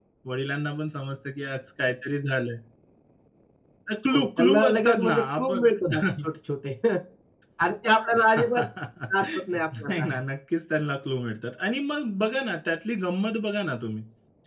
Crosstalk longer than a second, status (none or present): present